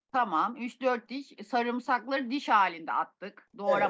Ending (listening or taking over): taking over